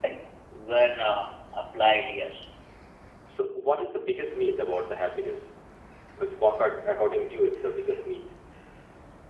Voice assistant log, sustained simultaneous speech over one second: none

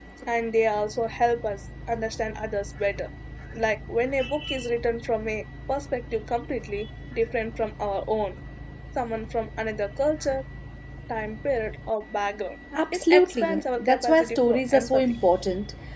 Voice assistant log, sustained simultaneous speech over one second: present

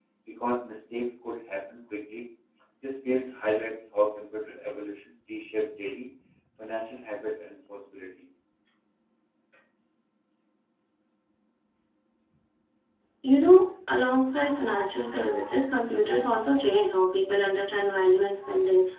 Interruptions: none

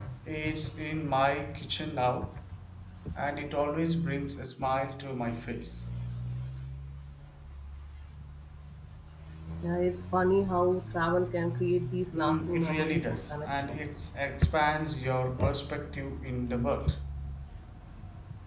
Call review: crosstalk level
present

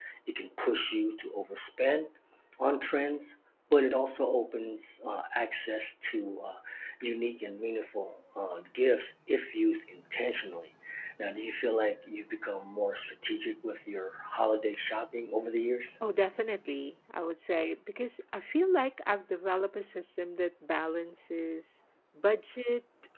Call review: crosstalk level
none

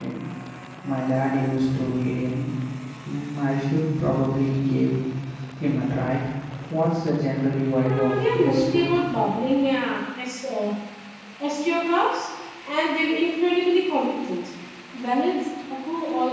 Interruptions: present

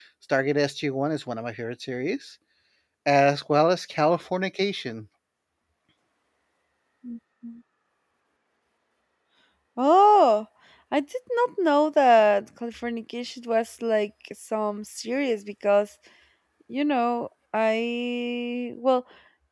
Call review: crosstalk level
none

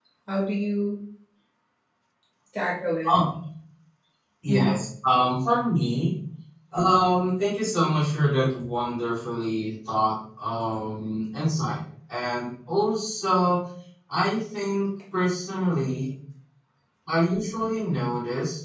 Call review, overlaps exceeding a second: none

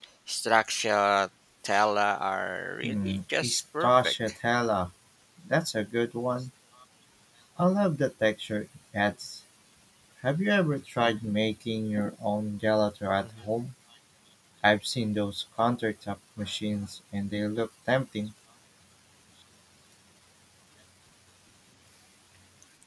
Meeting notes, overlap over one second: present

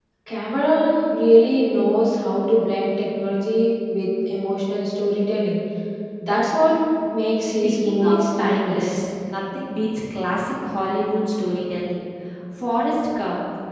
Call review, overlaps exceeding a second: present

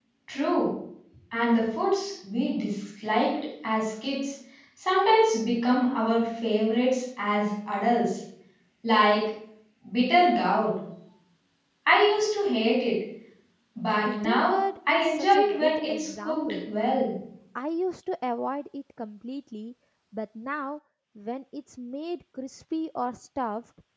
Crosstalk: present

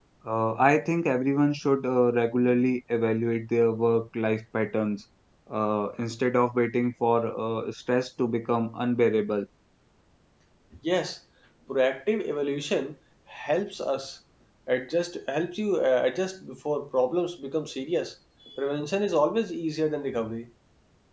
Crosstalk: none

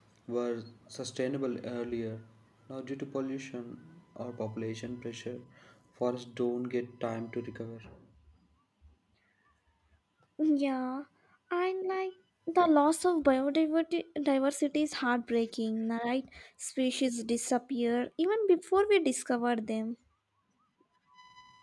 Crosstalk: none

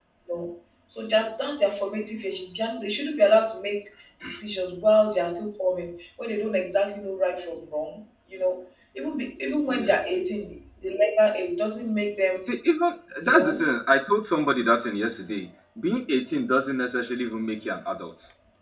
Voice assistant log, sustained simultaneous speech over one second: none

